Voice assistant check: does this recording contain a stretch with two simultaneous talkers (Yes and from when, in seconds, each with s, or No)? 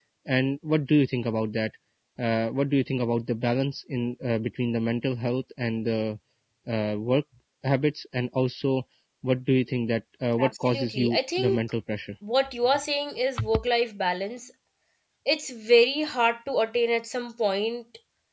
Yes, from 10.4 s